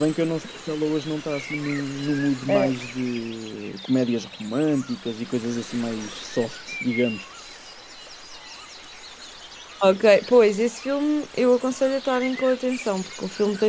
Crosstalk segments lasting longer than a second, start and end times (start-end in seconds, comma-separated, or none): none